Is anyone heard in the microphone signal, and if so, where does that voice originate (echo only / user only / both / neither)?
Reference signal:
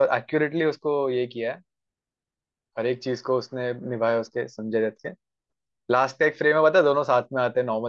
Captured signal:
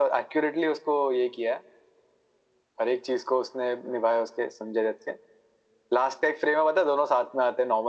echo only